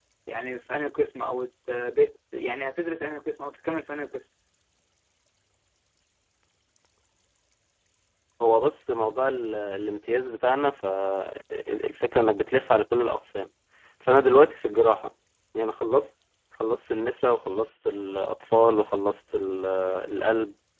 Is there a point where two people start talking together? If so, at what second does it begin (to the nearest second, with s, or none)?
none